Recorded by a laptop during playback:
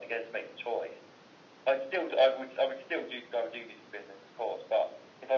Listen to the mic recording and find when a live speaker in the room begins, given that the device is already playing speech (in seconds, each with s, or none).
none